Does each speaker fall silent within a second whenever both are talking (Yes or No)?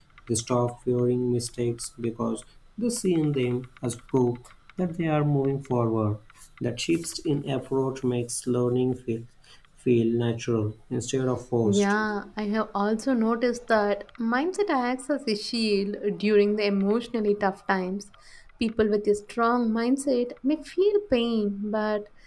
Yes